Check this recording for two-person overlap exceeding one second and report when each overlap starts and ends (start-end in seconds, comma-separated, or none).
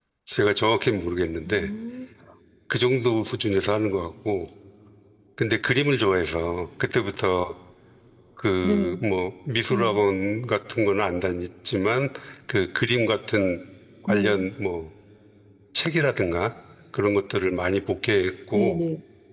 none